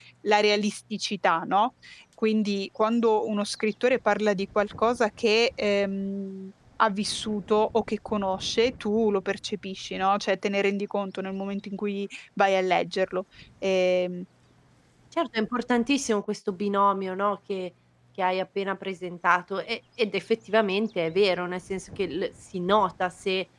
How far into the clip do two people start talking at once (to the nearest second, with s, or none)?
none